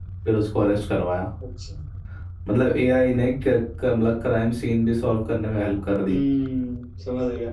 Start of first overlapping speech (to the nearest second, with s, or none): none